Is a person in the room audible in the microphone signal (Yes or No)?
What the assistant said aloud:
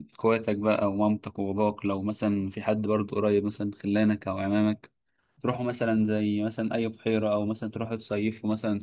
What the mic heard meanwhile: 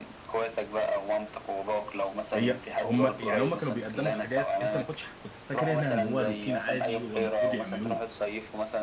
Yes